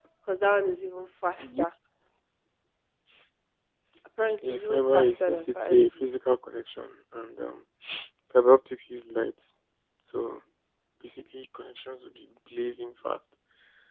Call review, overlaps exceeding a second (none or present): present